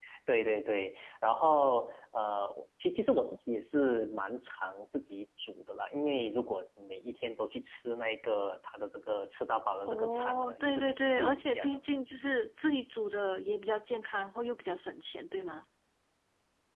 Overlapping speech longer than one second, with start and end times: 9.9-11.8

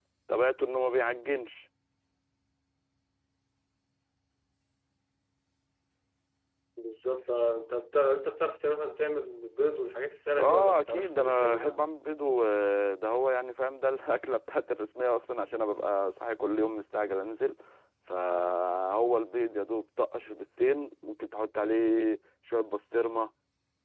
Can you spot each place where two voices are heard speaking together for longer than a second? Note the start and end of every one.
10.4-11.8

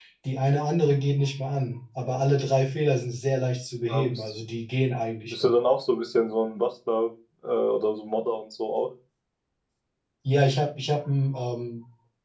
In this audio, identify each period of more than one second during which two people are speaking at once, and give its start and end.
none

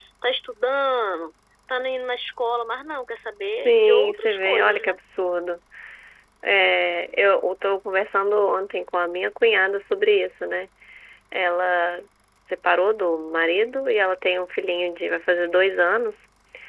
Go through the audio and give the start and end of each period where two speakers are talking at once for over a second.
3.5-5.0

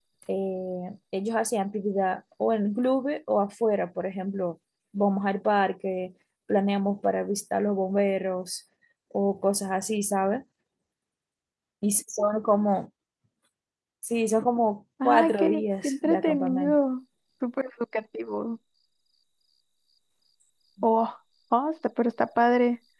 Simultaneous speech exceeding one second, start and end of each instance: 15.1-16.8

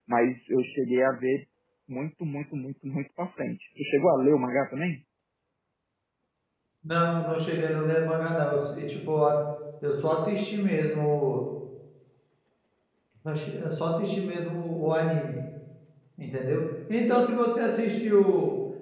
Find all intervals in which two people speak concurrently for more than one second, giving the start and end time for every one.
none

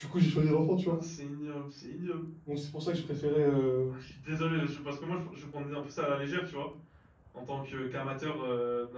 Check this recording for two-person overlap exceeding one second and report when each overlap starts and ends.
none

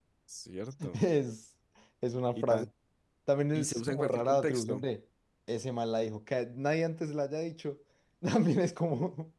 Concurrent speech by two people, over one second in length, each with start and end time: 3.5-4.8

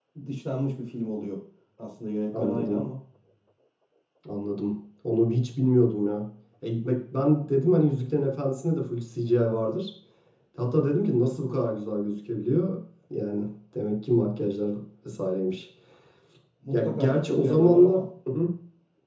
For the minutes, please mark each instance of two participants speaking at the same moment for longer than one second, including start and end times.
16.7-18.0

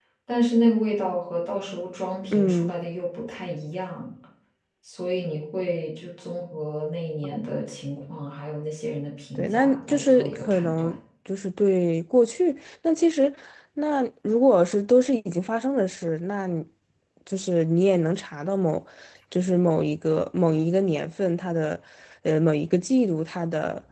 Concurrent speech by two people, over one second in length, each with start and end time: 9.4-10.9

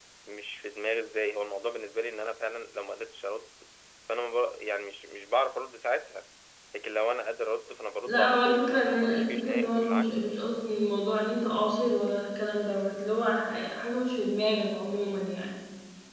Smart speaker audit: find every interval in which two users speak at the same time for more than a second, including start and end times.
8.1-10.3

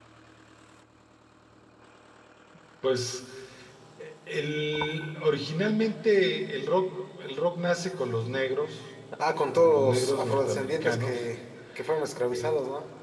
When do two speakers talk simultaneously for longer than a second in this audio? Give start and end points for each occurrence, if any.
9.5-11.2

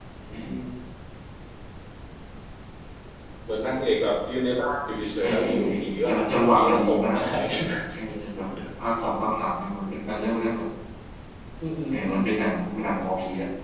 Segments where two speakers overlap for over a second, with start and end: 5.2-7.2

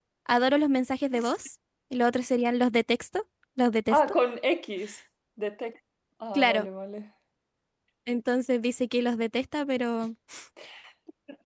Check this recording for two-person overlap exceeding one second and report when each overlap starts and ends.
none

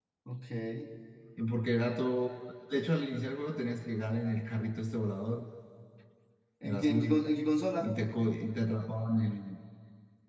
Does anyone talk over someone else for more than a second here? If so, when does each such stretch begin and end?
none

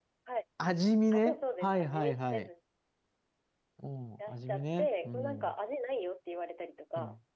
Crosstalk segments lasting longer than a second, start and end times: 1.1-2.5, 4.3-5.5

